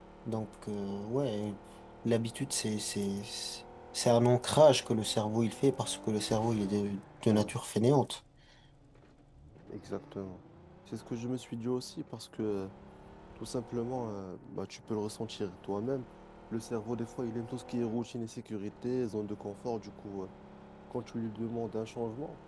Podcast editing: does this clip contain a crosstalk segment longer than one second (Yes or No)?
No